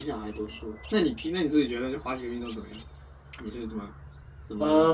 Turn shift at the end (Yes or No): Yes